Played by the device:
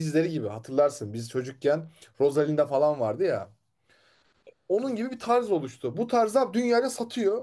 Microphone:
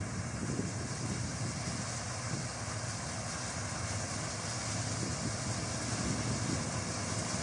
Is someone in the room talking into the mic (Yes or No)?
No